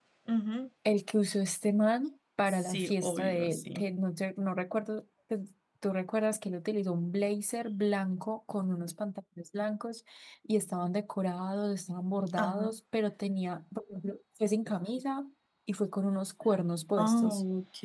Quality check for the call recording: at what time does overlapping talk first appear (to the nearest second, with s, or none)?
2 s